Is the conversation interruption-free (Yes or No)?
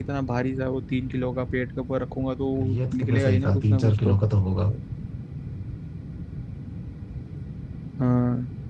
No